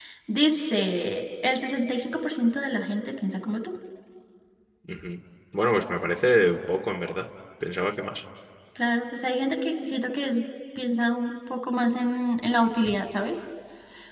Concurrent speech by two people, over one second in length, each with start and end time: none

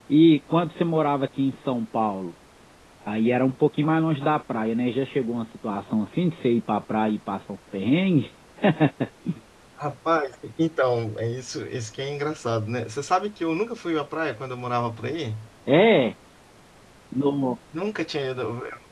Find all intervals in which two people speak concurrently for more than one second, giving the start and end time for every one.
none

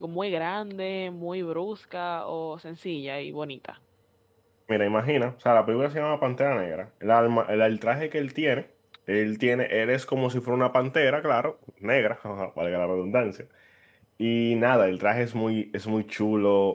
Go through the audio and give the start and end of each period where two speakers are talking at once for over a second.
none

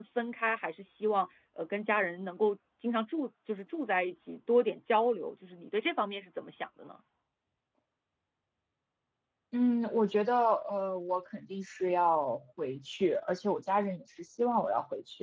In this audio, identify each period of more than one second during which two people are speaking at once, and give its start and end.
none

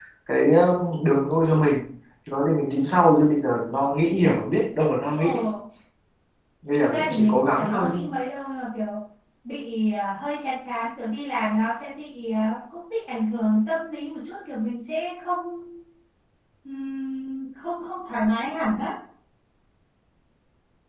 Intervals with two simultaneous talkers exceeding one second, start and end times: 6.8-8.0

